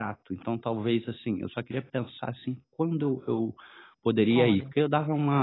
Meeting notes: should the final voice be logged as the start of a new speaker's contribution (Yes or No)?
No